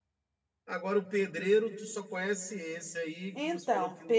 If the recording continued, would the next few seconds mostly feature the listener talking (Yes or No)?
Yes